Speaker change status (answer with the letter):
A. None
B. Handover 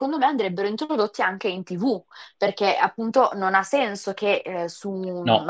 A